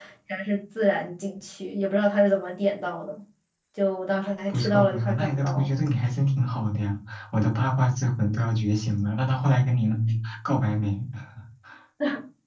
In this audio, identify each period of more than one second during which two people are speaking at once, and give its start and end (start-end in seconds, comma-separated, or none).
4.5-5.7